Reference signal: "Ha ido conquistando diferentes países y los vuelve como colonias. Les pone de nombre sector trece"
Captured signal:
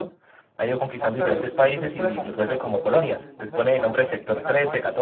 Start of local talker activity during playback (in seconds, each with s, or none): 1.0 s